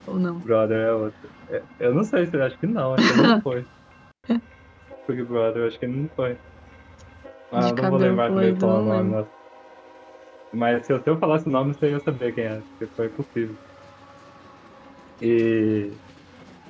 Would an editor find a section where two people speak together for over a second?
Yes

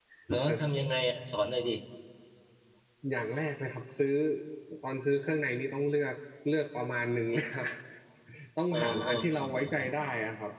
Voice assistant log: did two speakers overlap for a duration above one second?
No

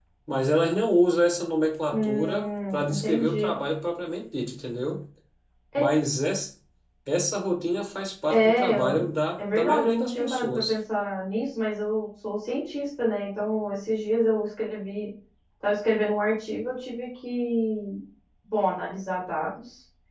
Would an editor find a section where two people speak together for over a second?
Yes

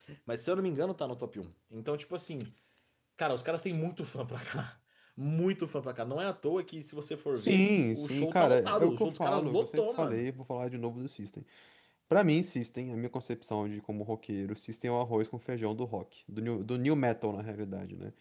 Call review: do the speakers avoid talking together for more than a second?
No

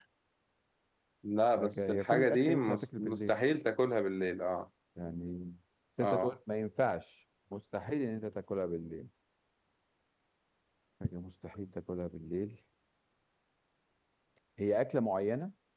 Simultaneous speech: Yes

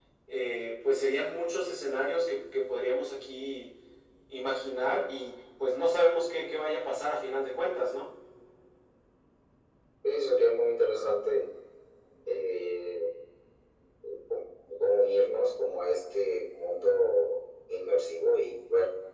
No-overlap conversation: Yes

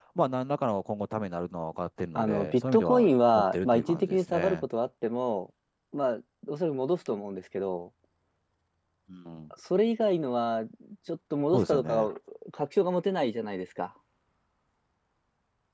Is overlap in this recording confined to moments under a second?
No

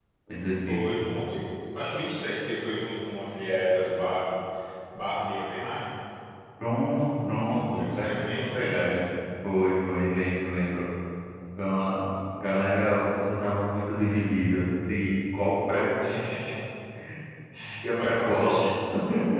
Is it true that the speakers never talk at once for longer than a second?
No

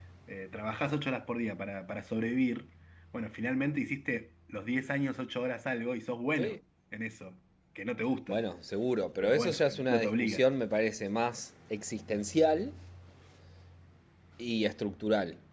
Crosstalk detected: Yes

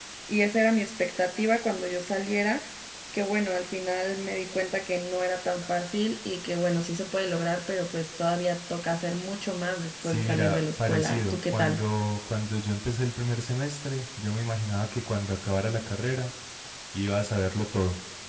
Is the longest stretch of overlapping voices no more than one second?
No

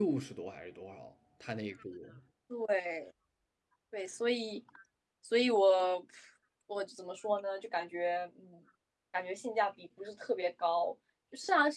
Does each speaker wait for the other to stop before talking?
Yes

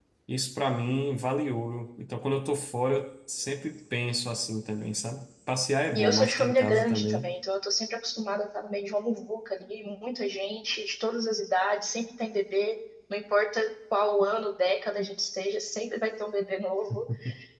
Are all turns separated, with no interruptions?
No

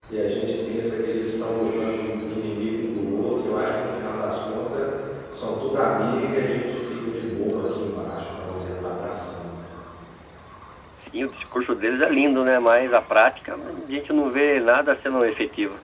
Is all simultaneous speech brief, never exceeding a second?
Yes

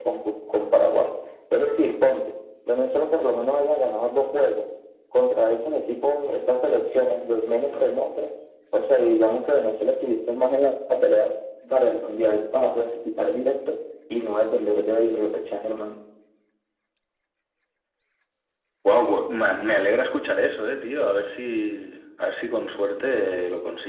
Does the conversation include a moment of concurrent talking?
No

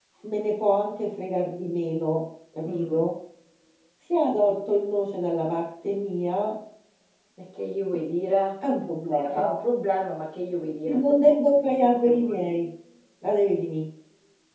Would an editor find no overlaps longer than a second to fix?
Yes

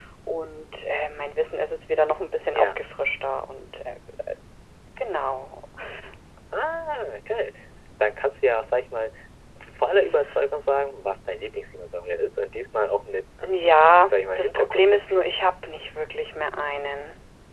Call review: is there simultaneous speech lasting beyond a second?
Yes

